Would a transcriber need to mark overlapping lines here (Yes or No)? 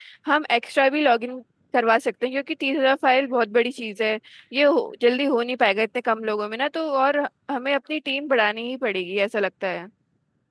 No